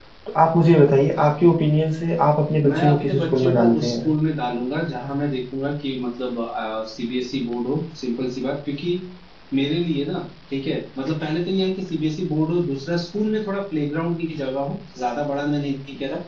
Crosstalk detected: Yes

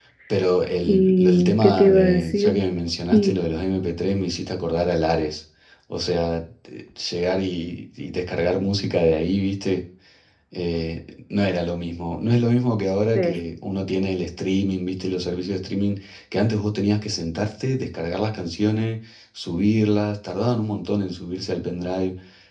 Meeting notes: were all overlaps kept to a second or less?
No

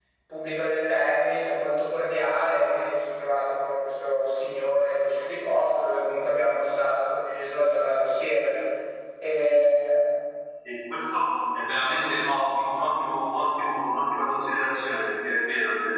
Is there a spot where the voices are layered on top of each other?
No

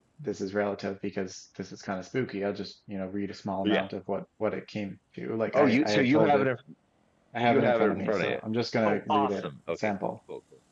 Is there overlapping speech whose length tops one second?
Yes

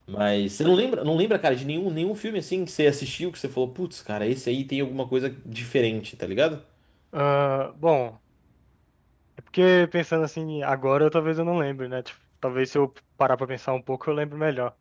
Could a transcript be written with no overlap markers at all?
Yes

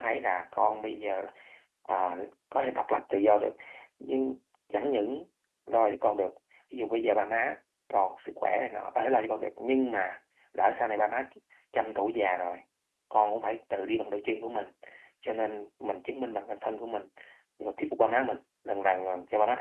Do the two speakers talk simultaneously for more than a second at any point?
No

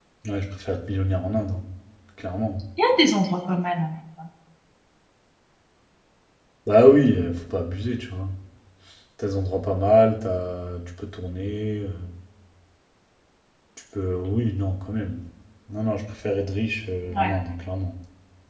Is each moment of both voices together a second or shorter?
Yes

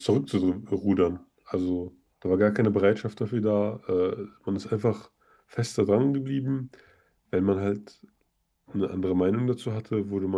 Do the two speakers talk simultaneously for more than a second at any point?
No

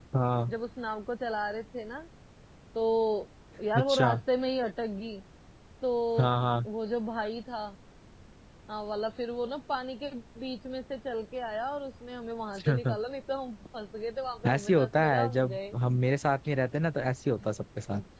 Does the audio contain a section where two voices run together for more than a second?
Yes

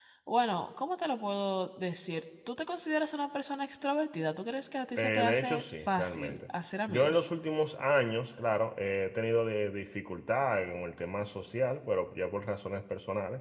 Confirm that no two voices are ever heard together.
No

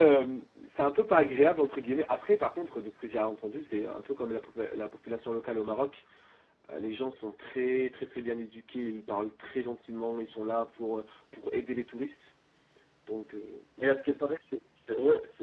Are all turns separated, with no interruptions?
Yes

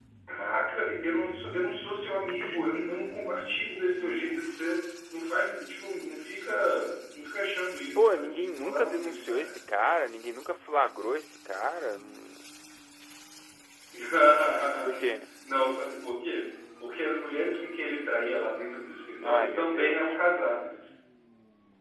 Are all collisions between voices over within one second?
No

